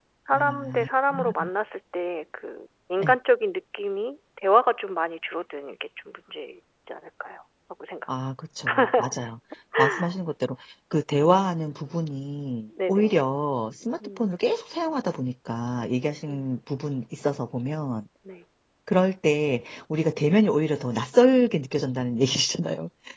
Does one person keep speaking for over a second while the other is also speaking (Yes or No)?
No